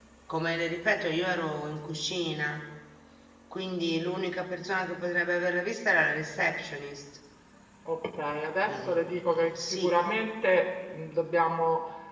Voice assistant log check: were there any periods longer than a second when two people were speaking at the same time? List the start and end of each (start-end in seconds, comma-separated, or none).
8.6-9.9